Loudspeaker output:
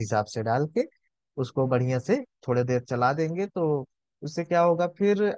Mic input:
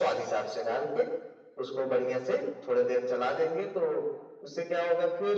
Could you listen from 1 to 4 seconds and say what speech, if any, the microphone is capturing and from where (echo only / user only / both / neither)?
echo only